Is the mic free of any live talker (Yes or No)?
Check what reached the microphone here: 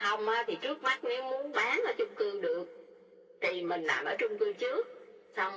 Yes